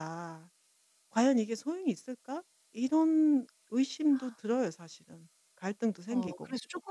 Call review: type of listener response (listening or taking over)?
taking over